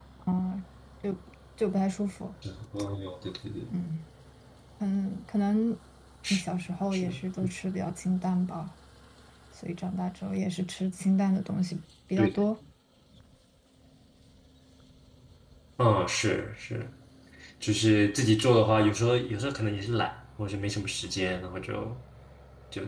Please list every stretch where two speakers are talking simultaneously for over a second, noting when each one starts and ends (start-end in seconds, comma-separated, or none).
none